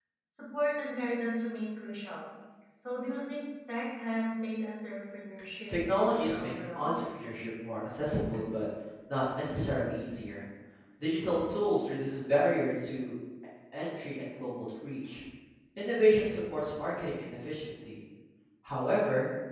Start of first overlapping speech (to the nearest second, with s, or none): 6 s